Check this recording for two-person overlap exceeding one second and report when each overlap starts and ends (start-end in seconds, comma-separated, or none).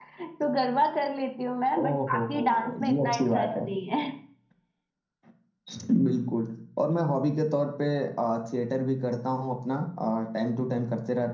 1.8-3.5